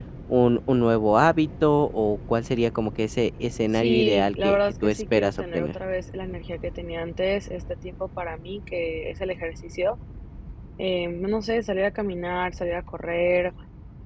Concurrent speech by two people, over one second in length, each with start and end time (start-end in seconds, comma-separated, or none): 3.7-5.7